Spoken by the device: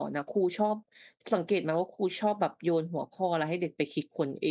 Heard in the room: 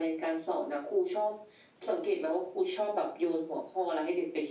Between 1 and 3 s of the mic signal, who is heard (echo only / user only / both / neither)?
echo only